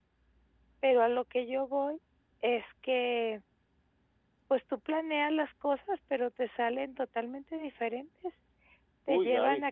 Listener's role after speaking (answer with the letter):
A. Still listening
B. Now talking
A